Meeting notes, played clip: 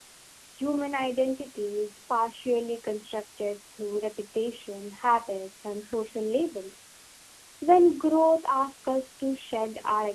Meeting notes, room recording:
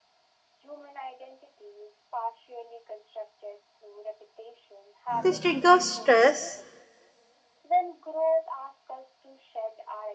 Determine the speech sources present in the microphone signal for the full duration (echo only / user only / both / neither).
both